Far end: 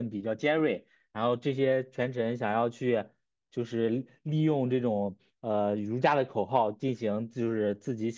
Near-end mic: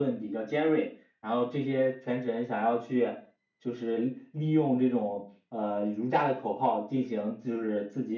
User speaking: No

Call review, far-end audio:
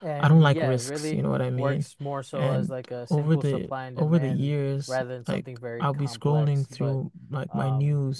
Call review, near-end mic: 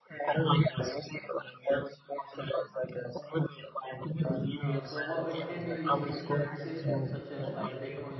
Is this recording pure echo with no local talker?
No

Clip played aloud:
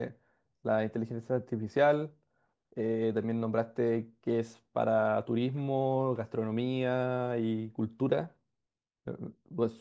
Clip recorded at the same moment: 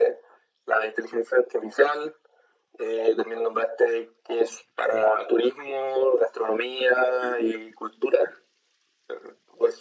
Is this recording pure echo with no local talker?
Yes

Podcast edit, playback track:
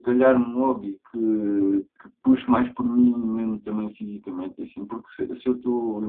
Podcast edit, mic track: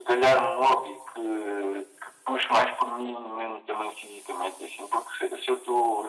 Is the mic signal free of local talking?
Yes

